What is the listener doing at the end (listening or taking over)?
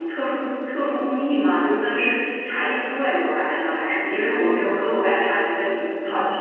taking over